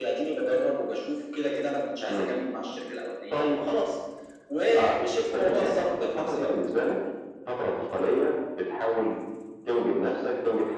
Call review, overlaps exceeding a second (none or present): present